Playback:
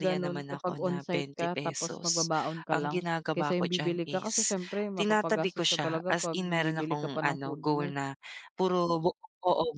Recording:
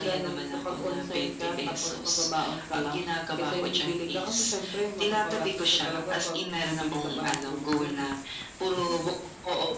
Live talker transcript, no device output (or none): none